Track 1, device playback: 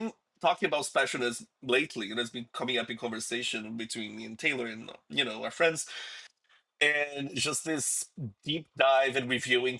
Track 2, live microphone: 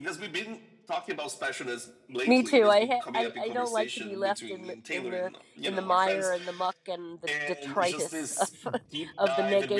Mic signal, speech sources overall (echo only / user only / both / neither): both